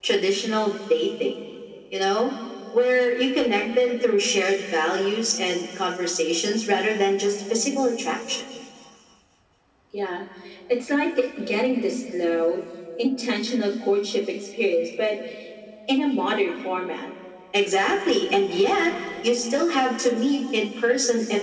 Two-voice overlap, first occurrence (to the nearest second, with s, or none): none